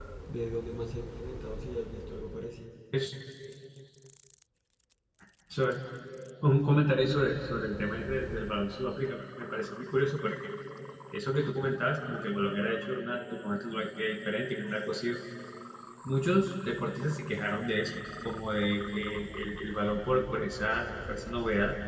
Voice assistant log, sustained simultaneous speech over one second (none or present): none